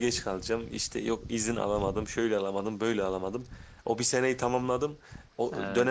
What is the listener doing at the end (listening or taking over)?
listening